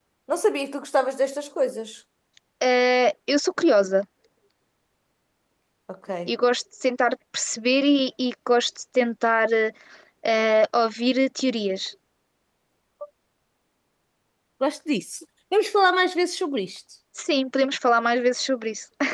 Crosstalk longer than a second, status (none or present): none